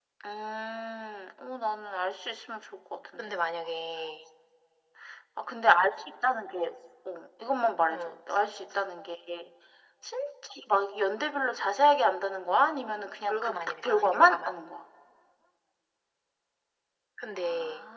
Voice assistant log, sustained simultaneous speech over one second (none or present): present